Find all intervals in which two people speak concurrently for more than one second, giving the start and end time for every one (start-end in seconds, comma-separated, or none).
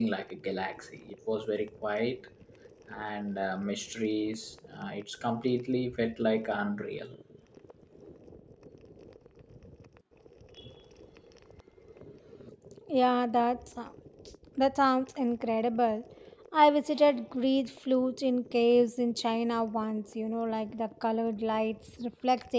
none